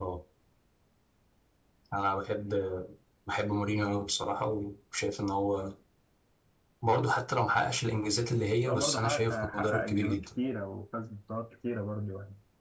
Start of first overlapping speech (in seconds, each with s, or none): 8.6 s